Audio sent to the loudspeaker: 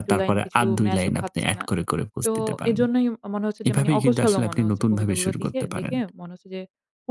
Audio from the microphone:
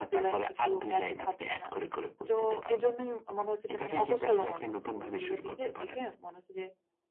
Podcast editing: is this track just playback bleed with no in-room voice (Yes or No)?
Yes